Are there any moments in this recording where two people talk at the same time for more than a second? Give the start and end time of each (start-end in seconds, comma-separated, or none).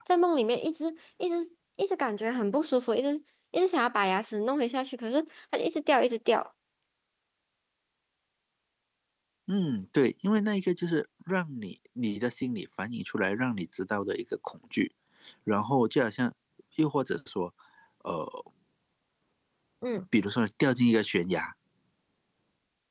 none